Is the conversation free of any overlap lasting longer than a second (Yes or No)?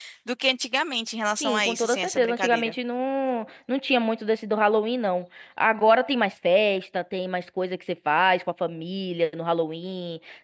No